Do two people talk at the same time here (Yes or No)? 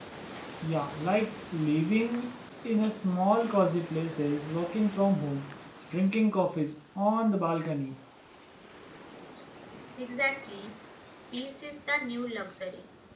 No